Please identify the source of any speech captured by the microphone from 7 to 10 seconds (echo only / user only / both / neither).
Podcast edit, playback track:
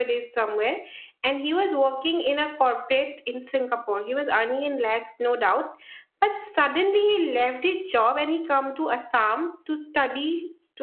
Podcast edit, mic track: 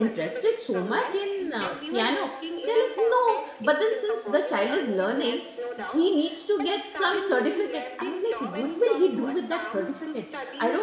both